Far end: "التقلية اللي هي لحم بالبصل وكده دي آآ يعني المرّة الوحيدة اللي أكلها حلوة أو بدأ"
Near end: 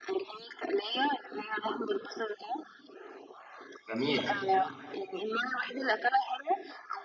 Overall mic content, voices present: both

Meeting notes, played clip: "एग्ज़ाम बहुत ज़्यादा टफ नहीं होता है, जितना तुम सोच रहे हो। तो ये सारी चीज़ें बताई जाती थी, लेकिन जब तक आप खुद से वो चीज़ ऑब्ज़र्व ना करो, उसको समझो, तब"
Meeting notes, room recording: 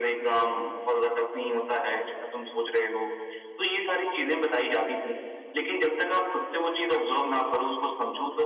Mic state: echo only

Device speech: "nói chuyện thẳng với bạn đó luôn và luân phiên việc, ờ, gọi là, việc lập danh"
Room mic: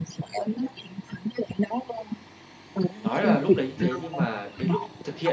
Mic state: both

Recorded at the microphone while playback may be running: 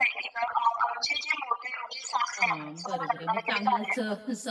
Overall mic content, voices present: both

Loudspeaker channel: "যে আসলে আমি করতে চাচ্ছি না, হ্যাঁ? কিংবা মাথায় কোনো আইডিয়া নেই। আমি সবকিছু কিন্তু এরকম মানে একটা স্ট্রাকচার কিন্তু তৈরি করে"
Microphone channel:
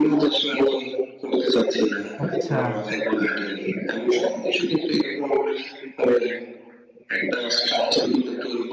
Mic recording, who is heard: both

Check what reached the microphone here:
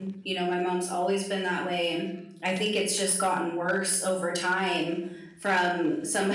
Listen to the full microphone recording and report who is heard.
user only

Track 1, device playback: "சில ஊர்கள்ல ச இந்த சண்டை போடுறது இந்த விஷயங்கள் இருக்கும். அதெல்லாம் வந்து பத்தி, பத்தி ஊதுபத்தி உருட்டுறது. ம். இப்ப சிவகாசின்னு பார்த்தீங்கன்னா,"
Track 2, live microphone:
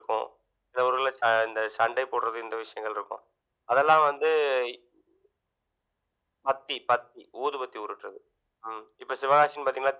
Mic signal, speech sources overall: echo only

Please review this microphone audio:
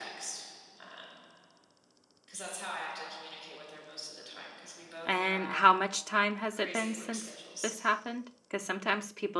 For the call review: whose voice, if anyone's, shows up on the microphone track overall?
both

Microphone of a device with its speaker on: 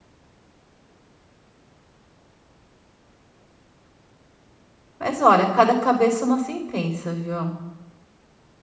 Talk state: user only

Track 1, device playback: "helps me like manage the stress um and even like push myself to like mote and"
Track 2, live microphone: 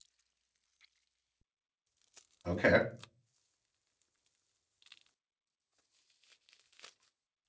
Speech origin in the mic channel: user only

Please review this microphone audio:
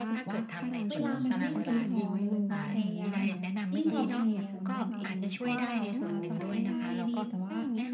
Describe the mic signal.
both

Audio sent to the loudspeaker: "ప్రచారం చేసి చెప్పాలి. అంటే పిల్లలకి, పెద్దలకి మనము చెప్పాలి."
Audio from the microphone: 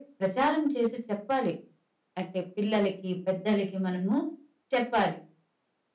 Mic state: echo only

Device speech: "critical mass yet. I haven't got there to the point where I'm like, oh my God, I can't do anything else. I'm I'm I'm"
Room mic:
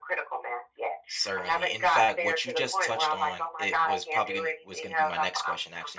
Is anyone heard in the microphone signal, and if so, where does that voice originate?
both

